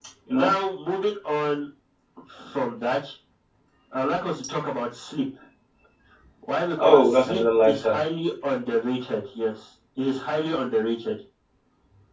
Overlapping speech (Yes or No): Yes